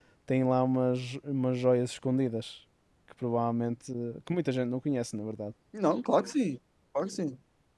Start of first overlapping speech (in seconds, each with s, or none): none